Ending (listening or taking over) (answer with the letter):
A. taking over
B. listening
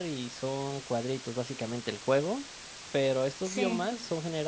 B